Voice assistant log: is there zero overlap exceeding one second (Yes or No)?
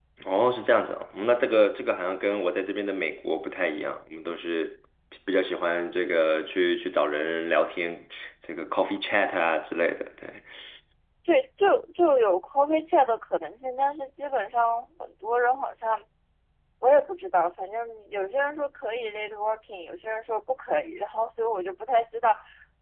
Yes